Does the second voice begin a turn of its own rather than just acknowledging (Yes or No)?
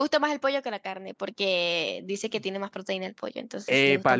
Yes